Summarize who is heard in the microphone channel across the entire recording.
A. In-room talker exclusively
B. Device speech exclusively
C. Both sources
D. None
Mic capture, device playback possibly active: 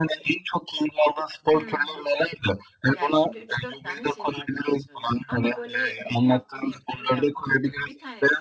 C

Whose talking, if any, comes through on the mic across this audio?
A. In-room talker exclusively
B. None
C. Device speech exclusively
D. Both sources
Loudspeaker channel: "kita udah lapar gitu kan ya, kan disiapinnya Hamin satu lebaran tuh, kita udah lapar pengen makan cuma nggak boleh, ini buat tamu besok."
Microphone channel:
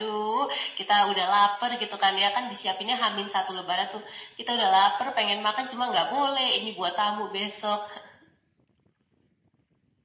C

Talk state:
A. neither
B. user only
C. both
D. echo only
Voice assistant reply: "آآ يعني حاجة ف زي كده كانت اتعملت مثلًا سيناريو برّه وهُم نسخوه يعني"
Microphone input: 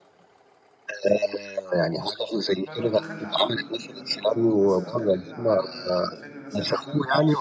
C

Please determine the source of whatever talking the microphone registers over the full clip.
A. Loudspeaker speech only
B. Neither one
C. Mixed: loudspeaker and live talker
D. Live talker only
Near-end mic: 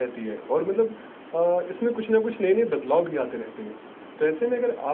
D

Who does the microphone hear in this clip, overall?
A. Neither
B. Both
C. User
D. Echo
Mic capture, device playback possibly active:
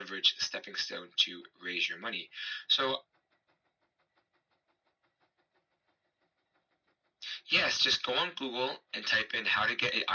D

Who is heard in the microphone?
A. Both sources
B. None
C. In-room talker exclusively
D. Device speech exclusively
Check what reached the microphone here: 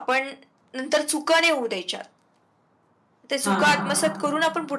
A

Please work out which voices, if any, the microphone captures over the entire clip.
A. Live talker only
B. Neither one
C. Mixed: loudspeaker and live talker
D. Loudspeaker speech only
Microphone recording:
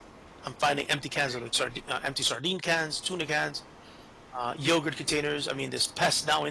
A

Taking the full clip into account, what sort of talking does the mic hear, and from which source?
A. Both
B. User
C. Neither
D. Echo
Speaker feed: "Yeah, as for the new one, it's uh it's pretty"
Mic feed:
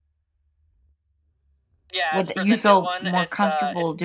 A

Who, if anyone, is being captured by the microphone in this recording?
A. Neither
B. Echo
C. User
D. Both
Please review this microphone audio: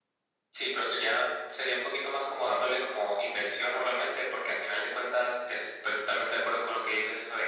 B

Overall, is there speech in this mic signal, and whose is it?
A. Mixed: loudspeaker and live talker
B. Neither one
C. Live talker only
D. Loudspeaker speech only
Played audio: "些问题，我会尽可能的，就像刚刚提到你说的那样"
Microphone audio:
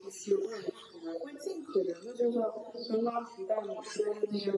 D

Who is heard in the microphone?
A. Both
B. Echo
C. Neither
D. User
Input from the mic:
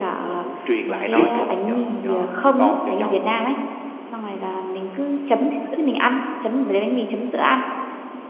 A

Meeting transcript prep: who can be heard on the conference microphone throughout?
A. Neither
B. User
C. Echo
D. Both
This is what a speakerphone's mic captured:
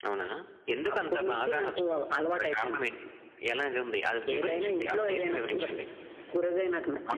C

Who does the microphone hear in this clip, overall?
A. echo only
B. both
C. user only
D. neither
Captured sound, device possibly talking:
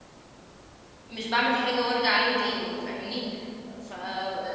C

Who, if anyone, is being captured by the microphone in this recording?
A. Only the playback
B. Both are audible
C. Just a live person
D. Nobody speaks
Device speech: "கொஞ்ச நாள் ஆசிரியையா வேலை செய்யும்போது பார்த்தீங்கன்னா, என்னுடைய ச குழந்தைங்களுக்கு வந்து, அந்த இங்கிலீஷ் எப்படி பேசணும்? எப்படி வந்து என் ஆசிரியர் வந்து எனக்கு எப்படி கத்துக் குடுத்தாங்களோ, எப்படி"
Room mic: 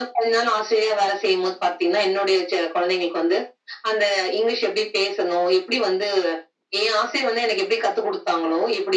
A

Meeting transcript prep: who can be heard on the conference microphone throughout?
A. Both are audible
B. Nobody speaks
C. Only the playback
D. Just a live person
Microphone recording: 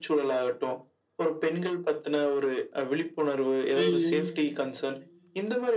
A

